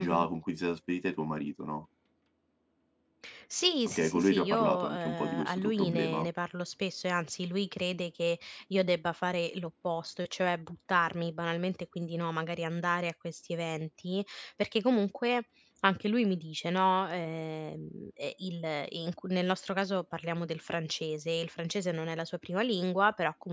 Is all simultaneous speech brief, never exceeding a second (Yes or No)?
No